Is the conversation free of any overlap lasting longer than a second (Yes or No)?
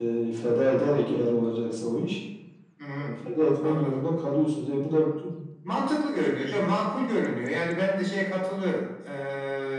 Yes